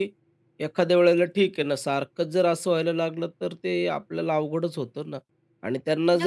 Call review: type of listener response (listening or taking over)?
listening